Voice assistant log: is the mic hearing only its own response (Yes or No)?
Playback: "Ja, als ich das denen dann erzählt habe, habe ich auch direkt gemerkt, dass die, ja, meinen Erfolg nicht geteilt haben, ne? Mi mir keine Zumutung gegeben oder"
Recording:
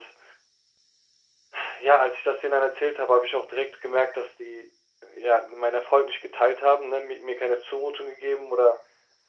Yes